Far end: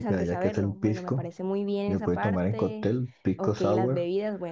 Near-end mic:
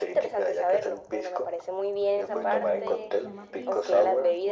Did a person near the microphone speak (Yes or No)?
Yes